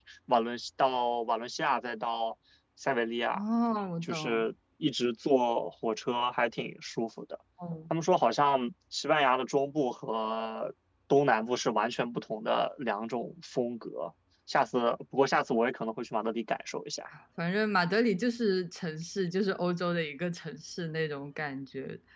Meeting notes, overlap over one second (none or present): none